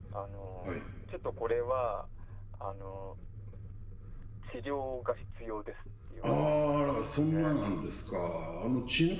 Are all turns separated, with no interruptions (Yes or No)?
No